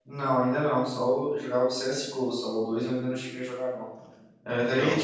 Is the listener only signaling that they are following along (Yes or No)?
Yes